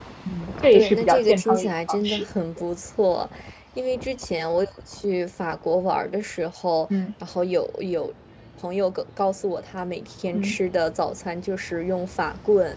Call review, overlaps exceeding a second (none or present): present